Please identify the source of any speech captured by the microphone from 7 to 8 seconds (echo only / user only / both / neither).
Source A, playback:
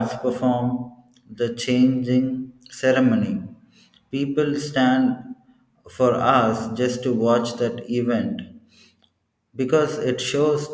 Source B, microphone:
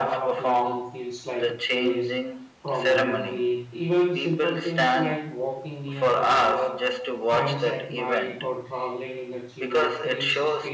both